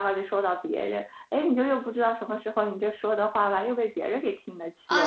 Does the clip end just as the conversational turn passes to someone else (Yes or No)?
Yes